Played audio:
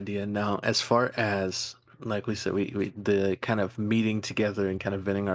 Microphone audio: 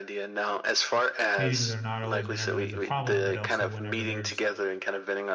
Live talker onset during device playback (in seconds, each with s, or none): 1.4 s